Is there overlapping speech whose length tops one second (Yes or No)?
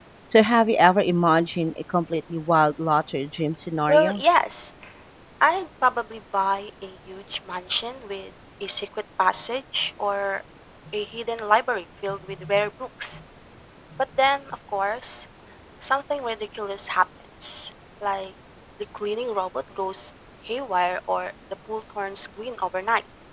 No